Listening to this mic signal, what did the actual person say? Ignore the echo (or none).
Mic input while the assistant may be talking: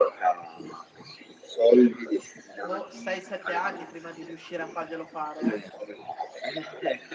boh, 6, 7 anni prima di riuscire a farglielo fare eh,